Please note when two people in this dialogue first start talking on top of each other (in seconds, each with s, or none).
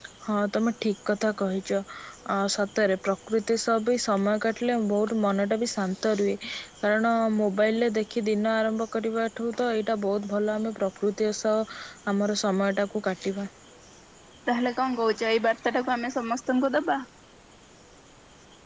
none